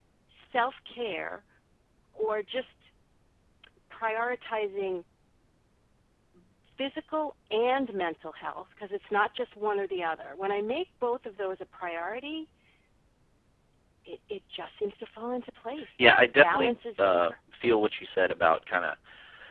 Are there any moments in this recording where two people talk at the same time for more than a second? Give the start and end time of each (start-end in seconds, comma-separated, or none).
16.0-17.2